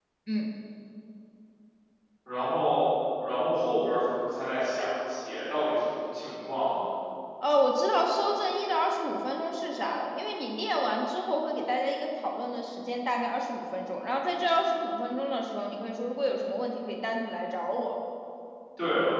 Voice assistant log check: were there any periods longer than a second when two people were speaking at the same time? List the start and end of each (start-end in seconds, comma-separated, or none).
none